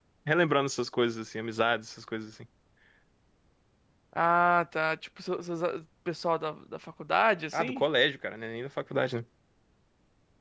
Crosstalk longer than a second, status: none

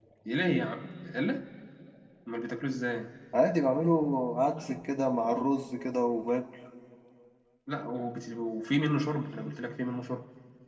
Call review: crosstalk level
none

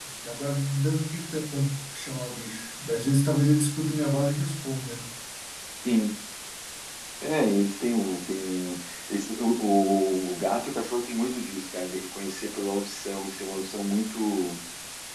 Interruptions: none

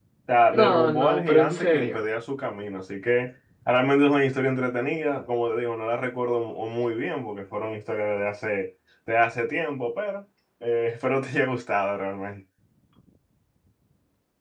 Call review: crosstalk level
present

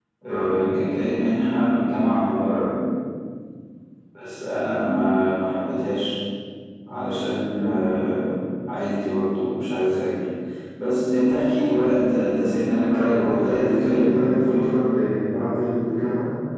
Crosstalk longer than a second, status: present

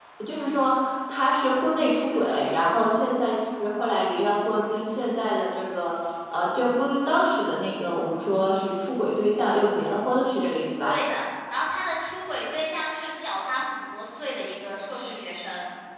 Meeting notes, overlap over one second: none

